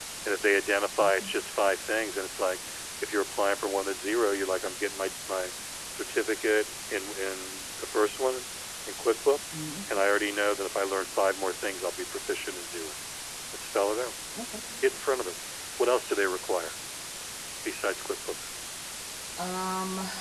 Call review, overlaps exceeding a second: none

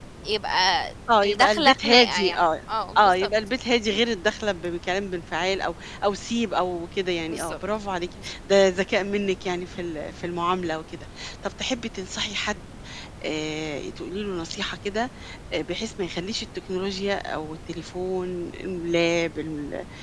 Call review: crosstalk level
present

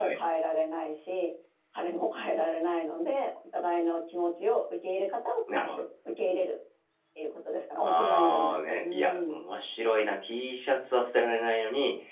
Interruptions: present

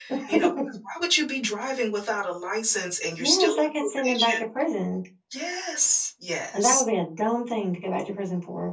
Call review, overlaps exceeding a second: present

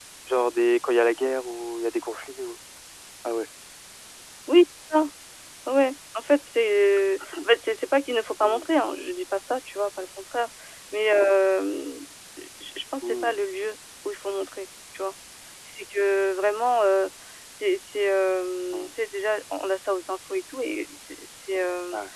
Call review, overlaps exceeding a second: none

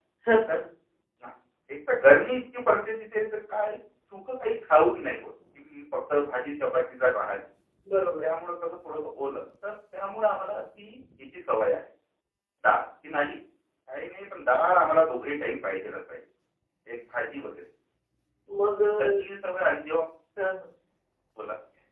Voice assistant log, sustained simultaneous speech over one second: none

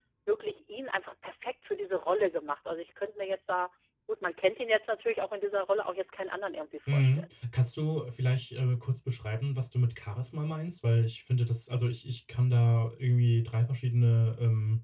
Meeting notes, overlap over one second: none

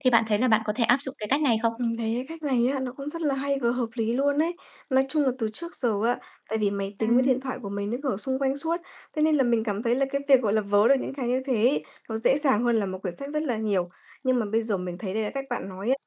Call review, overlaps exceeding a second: none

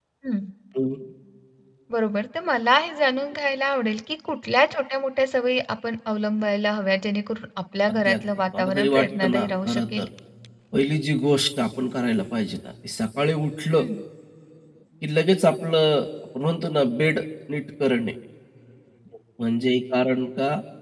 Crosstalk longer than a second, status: present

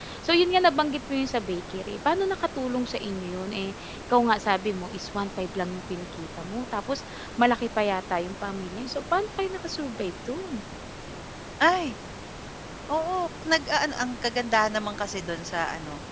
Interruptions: none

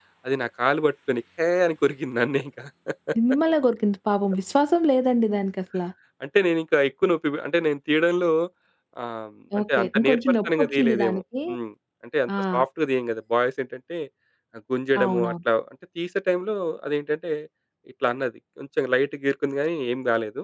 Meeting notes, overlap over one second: present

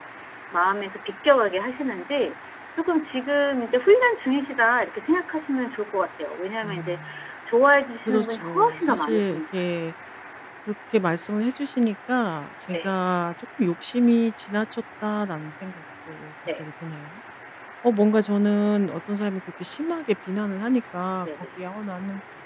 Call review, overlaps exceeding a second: present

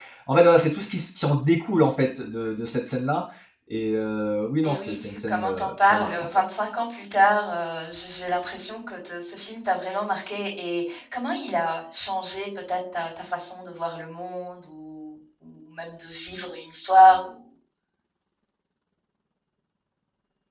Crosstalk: present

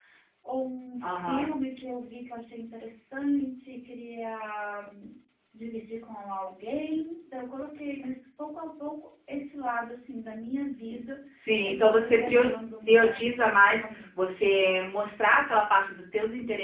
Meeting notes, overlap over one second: present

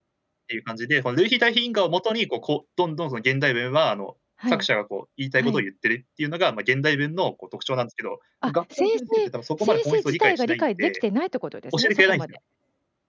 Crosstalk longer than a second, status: present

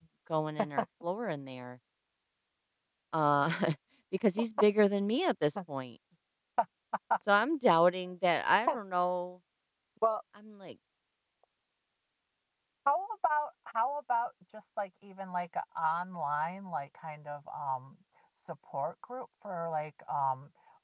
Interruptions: none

